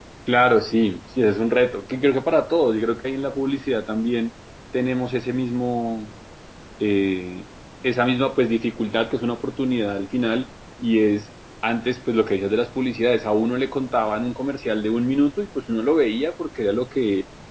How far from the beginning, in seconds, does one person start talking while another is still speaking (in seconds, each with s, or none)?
none